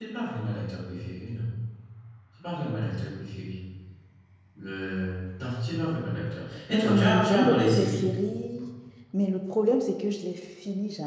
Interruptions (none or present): present